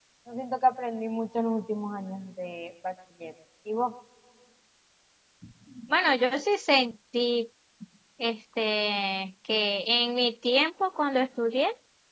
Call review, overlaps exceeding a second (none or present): none